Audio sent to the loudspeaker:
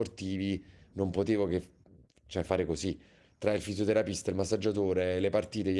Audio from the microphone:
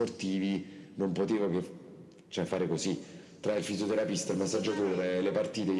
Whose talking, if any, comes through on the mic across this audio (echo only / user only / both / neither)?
both